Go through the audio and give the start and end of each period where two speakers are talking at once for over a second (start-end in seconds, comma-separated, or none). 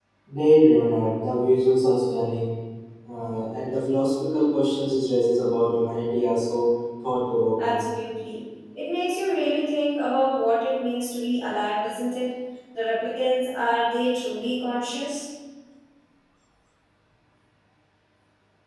none